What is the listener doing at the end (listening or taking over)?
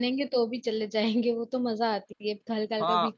taking over